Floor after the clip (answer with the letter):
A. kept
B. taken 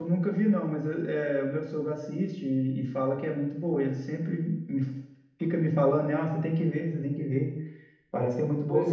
B